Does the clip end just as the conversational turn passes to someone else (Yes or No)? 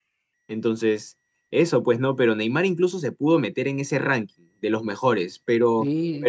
Yes